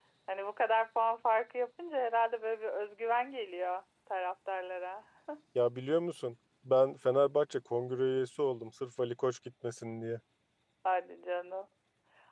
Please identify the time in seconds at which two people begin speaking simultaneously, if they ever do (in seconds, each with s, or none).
none